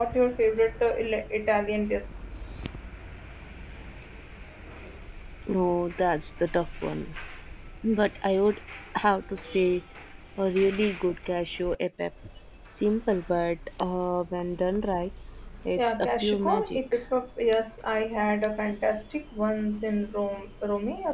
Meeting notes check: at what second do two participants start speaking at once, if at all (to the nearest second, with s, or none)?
16 s